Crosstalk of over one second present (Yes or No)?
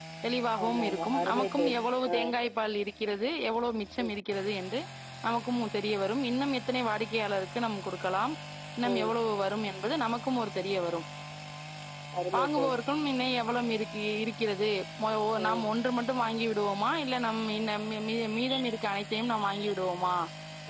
Yes